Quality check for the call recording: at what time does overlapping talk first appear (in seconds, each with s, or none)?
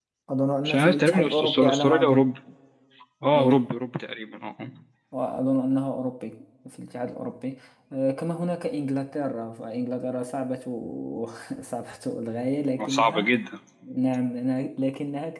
0.6 s